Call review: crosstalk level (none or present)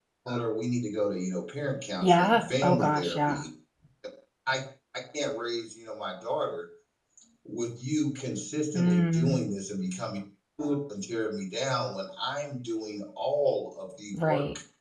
present